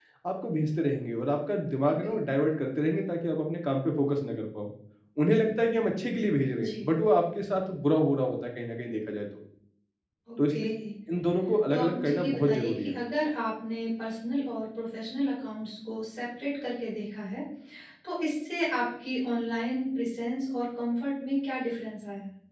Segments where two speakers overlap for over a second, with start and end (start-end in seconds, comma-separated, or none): 11.7-12.9